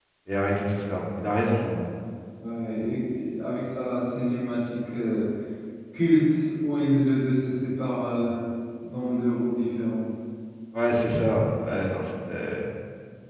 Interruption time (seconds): none

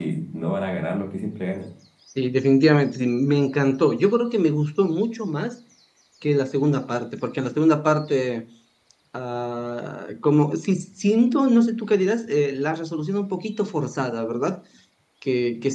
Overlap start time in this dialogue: none

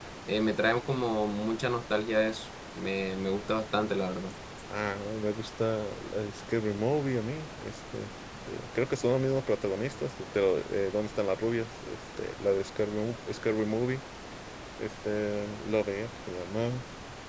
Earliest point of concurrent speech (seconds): none

